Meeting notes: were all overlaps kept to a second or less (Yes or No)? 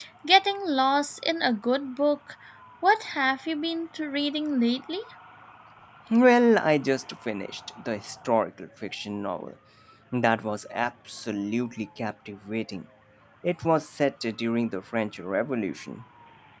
Yes